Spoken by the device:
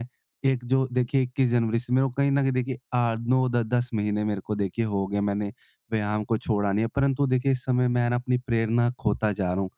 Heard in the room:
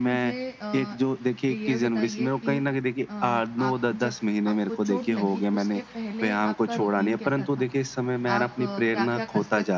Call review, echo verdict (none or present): present